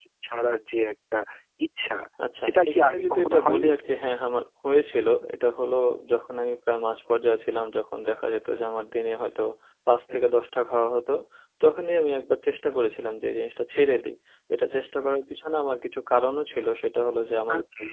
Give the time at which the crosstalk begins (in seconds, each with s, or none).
2.4 s